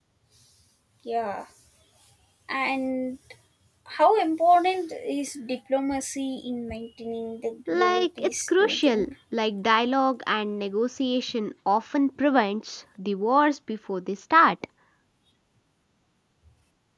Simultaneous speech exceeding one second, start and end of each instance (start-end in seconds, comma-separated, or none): 7.7-9.1